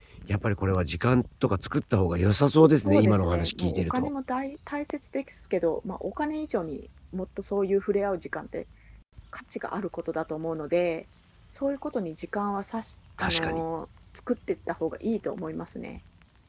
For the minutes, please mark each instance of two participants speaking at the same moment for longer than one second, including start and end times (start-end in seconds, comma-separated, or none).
2.9-4.1